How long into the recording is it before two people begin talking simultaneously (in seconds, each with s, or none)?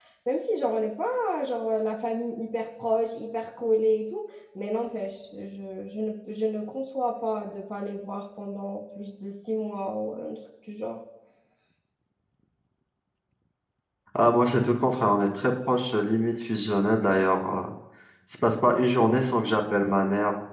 none